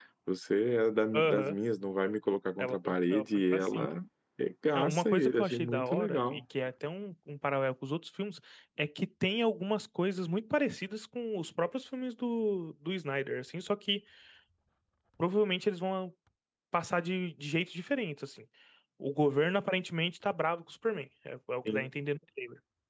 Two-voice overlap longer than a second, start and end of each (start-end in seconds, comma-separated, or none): 2.6-3.9, 4.8-6.4